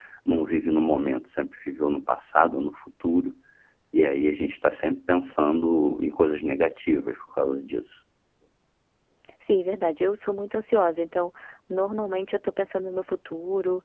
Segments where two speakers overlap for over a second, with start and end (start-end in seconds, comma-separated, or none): none